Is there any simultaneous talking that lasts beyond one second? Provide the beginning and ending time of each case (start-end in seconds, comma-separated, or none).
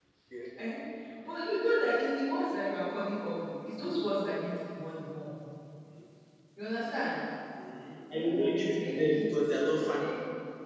8.1-9.3